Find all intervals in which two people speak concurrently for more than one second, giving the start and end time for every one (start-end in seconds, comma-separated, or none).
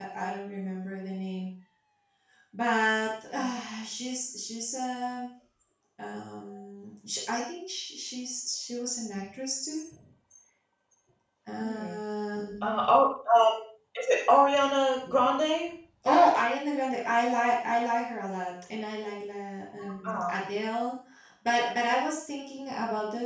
none